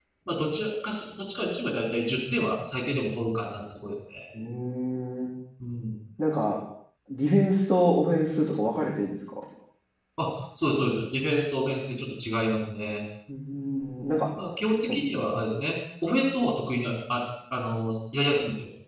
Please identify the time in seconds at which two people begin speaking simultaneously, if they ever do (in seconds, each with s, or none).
none